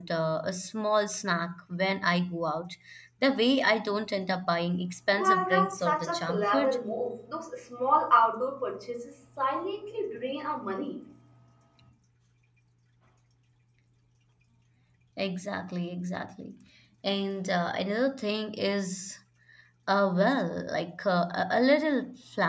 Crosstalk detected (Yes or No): Yes